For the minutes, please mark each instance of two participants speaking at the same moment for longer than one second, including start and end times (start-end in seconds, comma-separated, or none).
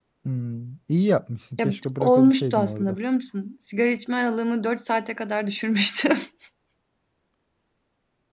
1.6-3.0